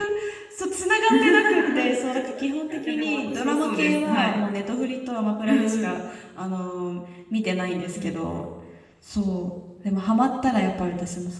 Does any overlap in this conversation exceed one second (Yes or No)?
Yes